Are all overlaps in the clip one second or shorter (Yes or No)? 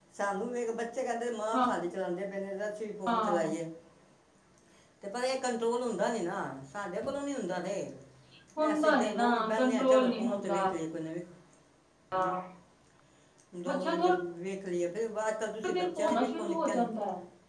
No